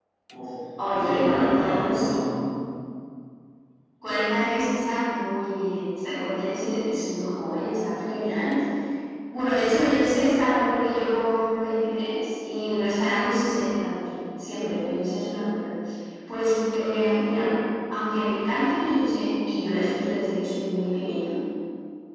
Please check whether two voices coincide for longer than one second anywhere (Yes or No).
Yes